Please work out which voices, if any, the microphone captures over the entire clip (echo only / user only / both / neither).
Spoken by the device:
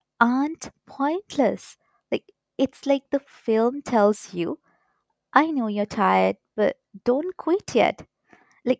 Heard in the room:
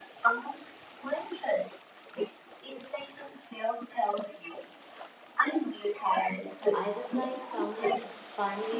both